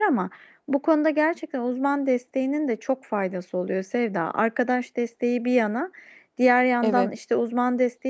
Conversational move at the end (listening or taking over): listening